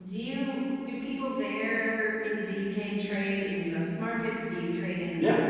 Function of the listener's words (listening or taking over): taking over